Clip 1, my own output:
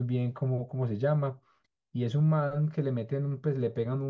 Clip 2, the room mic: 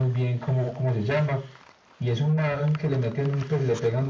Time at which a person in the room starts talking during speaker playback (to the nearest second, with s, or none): none